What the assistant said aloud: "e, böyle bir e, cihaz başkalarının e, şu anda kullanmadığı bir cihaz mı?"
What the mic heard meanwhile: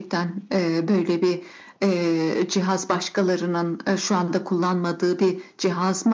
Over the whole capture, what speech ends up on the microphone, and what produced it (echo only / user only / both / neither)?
echo only